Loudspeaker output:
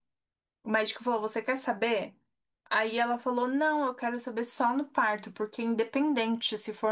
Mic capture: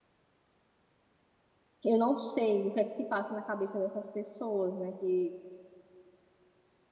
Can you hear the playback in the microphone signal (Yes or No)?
No